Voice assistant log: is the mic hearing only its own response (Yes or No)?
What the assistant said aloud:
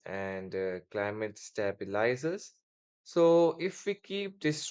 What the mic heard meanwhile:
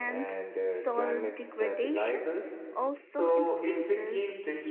No